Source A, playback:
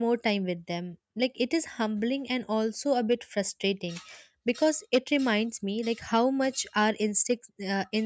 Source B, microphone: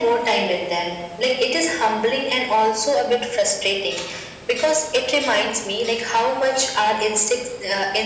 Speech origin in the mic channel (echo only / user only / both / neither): echo only